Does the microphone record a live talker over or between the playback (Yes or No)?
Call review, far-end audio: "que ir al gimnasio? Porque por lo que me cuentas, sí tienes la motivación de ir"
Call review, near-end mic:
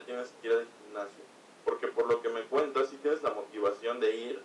No